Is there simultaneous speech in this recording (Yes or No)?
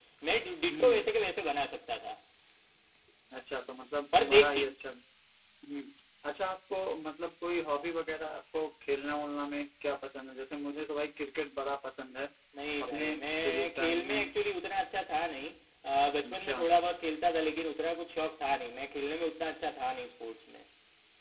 Yes